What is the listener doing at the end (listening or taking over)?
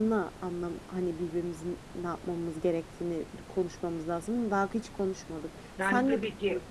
taking over